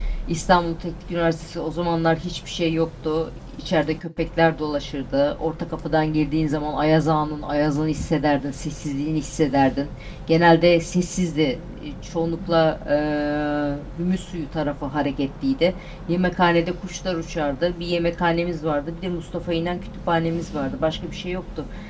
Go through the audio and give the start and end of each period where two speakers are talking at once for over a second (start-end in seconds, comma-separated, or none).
none